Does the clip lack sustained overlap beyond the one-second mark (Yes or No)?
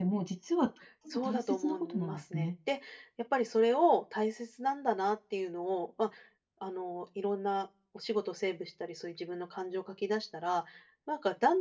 No